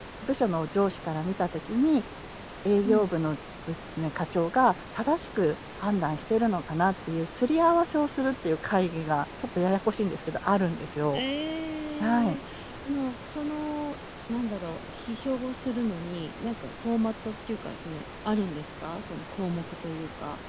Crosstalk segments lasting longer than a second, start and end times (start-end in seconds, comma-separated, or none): none